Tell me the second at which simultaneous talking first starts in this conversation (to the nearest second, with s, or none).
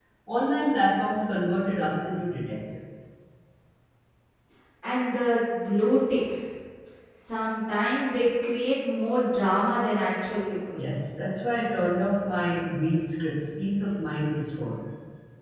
none